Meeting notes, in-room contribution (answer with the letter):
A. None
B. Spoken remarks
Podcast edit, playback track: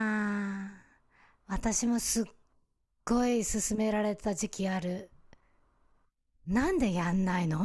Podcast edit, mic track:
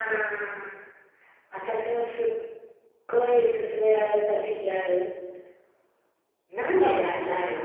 B